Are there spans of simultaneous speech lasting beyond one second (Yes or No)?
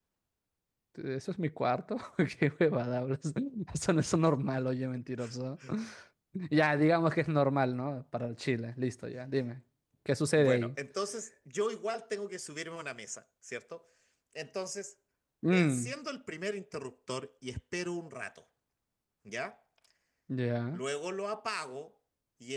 No